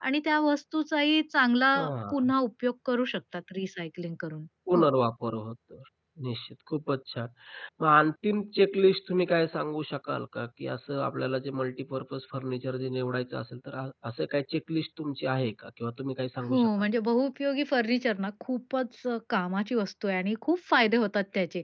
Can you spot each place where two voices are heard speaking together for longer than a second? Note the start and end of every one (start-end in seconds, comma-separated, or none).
none